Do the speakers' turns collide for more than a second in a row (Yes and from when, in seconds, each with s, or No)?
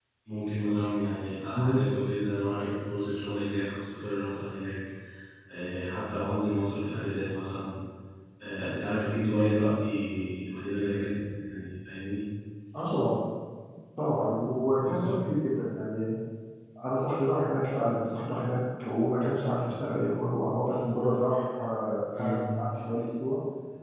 No